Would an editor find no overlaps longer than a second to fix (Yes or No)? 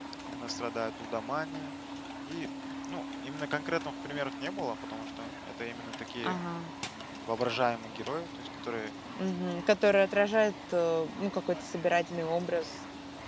Yes